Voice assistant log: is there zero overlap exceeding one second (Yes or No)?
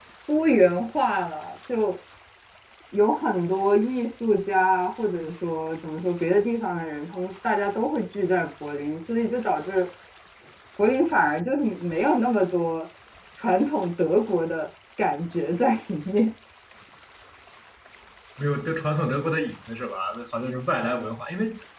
Yes